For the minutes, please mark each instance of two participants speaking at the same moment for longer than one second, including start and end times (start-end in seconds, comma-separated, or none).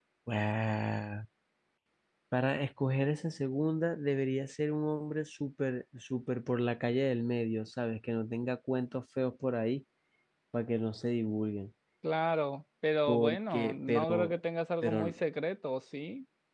13.1-14.4